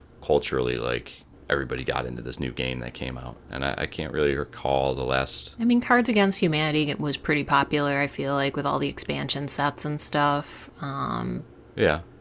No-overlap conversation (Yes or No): Yes